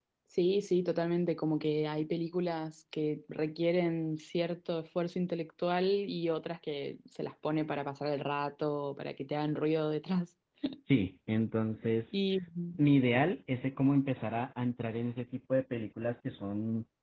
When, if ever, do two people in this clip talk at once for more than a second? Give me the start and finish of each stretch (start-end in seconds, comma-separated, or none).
none